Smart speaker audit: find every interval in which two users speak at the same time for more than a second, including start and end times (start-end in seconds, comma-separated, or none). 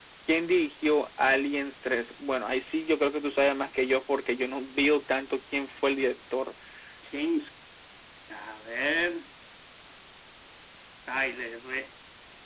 none